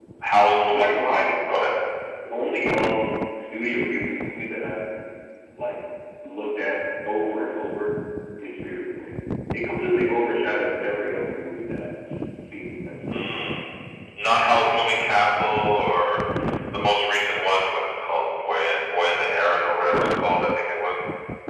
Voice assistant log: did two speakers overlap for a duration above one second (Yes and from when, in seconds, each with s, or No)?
No